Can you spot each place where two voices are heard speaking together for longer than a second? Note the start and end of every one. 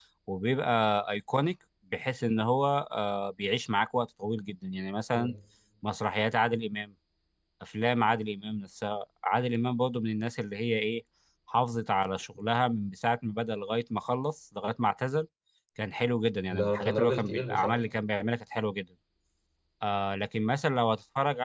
16.5-17.8

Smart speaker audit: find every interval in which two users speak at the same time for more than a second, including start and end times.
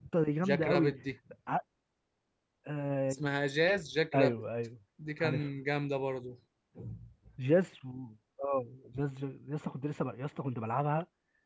none

